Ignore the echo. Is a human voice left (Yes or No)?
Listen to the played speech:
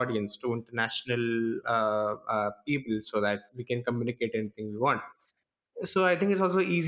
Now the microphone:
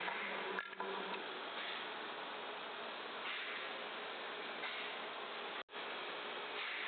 No